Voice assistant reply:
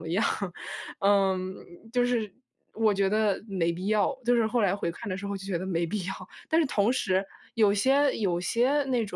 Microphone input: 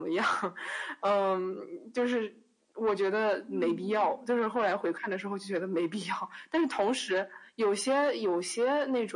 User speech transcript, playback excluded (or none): 嗯。